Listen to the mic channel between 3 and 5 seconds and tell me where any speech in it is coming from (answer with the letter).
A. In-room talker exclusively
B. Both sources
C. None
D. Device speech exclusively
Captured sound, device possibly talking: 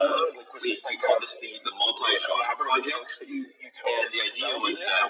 D